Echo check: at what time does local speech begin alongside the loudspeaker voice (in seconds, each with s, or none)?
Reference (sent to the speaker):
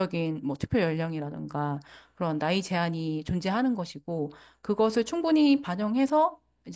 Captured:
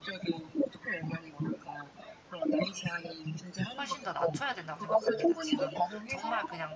3.8 s